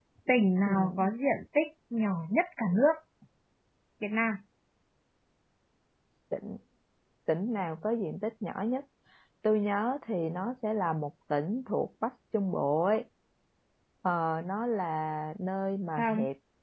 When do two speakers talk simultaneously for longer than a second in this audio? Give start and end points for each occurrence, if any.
none

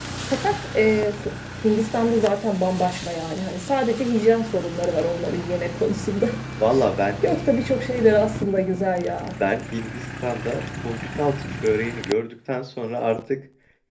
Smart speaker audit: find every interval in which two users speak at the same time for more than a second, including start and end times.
none

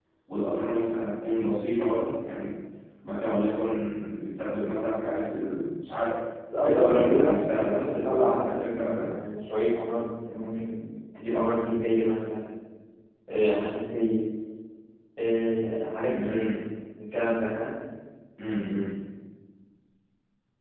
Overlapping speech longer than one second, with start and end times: 6.6-9.0

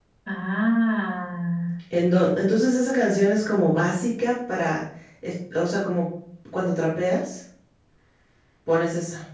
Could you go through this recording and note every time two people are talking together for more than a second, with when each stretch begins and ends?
none

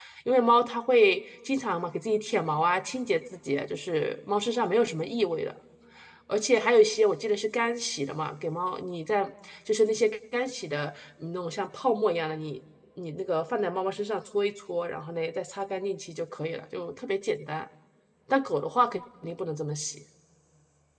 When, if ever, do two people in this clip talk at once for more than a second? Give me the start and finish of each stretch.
none

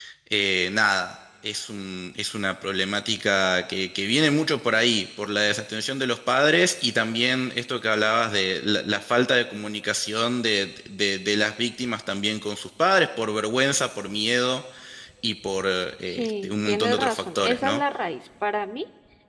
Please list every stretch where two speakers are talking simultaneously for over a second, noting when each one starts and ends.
16.1-17.8

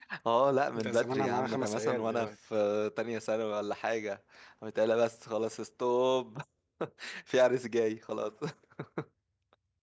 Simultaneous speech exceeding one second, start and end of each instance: 0.8-2.3

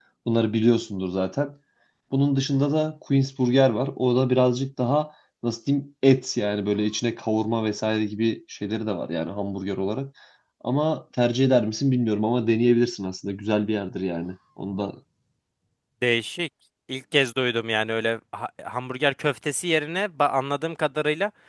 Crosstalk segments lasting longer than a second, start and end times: none

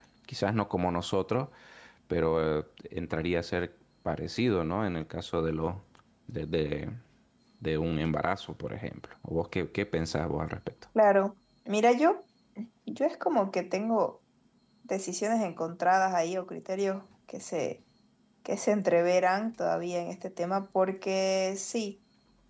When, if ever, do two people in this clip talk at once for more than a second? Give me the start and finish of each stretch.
none

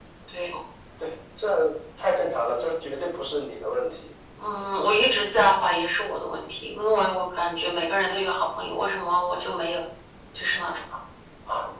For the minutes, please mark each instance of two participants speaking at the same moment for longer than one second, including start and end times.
none

